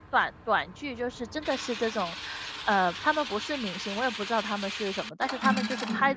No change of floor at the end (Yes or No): Yes